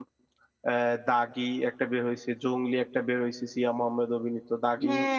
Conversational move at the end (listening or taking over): taking over